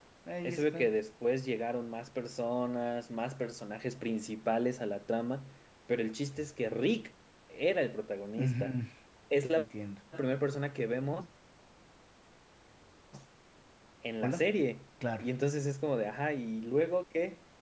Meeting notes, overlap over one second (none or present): none